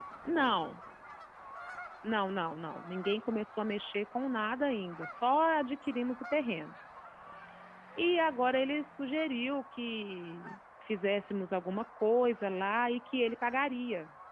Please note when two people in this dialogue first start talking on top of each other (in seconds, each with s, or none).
none